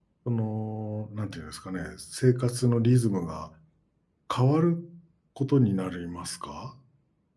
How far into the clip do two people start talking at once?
none

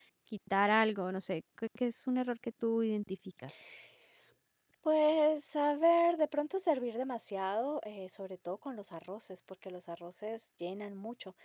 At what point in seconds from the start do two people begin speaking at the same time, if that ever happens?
none

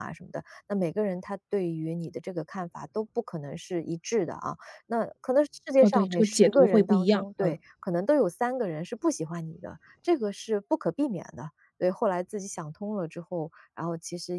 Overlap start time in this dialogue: 5.8 s

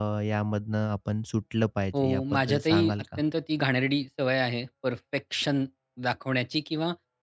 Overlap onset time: 1.9 s

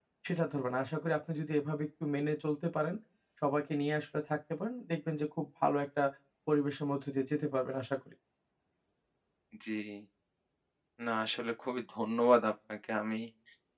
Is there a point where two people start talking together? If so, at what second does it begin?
none

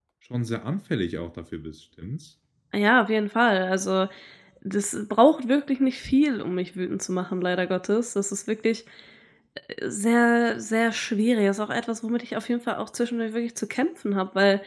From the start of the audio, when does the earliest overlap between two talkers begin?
none

